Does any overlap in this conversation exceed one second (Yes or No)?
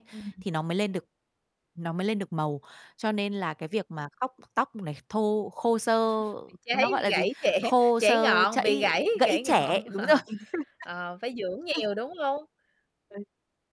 Yes